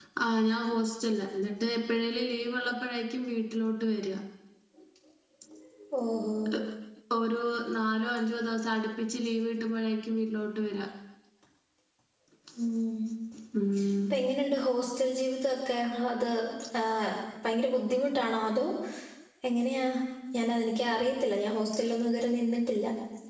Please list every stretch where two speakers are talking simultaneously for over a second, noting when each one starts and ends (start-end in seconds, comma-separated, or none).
none